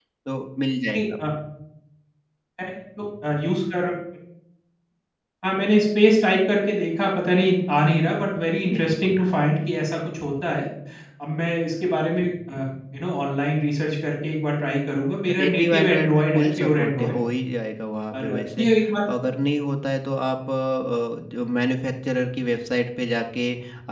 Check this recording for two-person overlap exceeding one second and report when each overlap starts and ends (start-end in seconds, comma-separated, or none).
15.4-17.2